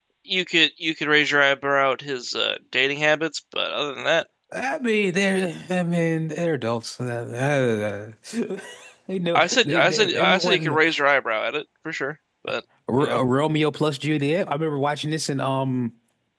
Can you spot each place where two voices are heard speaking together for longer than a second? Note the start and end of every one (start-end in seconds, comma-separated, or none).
9.4-10.8